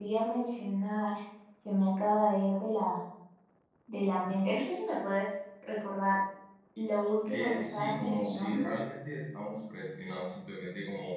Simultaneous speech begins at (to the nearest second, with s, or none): 7 s